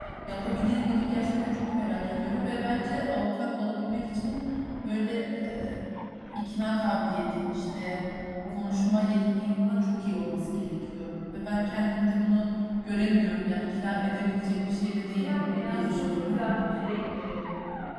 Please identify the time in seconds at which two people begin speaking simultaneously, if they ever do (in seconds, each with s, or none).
15.1 s